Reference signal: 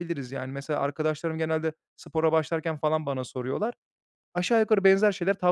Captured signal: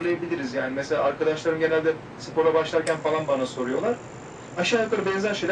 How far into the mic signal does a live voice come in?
none

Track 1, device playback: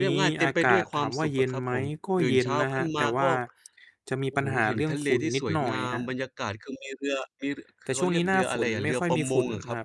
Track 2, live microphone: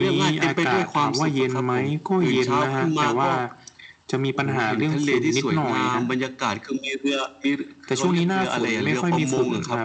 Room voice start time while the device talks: none

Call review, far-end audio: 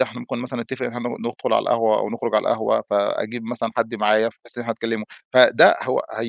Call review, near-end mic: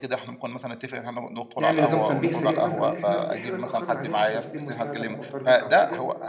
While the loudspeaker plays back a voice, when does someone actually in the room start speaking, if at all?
2 s

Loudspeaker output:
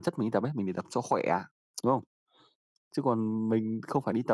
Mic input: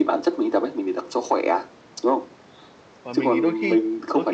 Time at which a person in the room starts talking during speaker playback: 3 s

